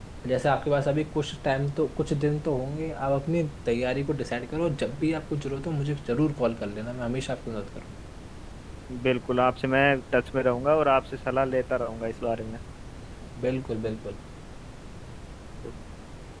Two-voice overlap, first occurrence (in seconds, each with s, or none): none